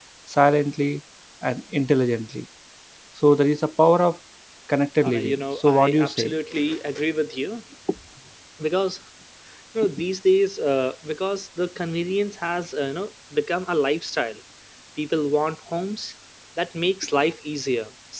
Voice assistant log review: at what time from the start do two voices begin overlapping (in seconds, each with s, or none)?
5.1 s